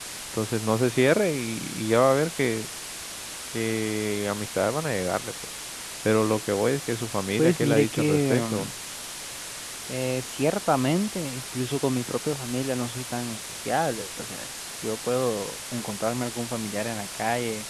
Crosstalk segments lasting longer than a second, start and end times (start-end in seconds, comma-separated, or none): 7.4-8.7